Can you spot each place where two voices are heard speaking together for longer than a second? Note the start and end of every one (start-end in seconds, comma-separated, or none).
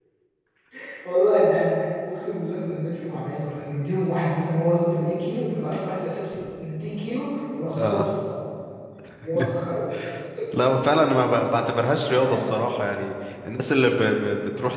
none